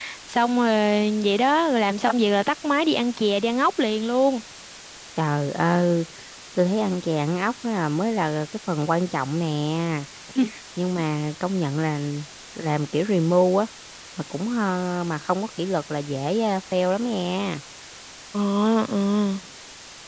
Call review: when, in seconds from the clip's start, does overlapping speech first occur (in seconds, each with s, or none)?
none